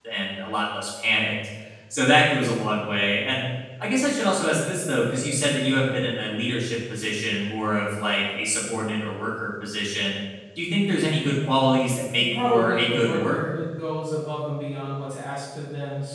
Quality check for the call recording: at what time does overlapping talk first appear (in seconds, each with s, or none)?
12.2 s